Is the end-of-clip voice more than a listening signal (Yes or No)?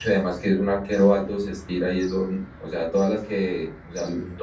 No